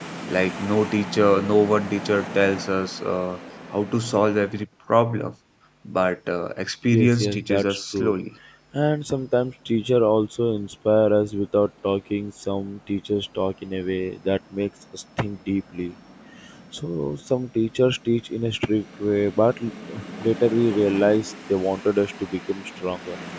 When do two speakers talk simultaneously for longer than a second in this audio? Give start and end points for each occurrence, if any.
6.8-8.2

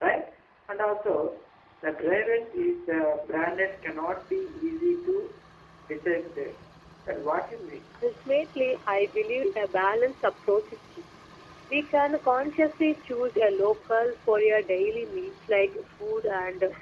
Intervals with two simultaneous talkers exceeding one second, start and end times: none

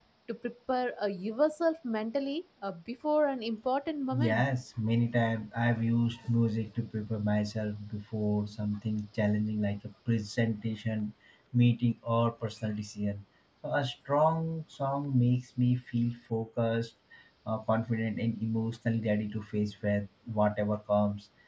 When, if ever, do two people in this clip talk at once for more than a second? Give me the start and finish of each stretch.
none

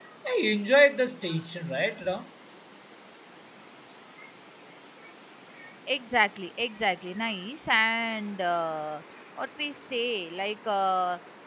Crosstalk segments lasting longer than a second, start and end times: none

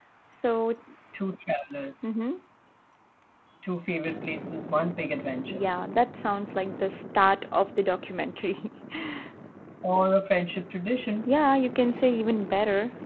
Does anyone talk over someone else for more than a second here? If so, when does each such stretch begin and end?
none

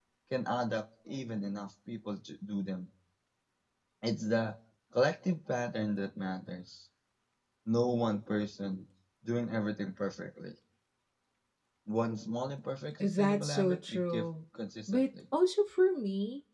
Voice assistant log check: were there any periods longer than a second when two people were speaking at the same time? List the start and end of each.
13.0-14.2

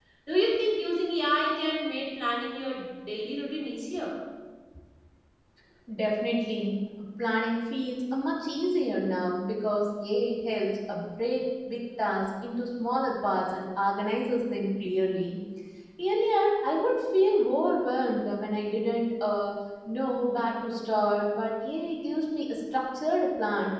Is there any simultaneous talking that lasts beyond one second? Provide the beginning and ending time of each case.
none

